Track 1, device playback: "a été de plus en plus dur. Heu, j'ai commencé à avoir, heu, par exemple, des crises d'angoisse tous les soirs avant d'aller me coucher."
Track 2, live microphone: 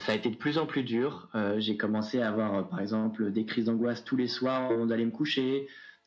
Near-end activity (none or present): none